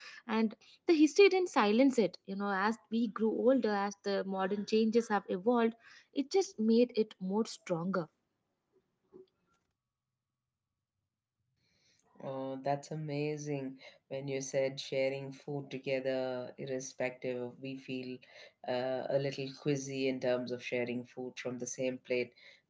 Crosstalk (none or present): none